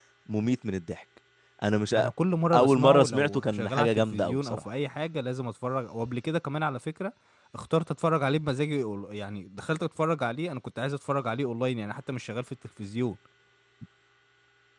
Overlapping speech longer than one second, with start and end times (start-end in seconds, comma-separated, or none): 2.5-4.6